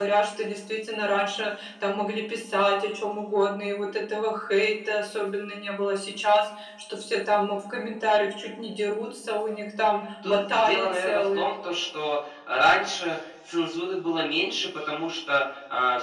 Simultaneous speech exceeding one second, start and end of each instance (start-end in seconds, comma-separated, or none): 10.2-11.5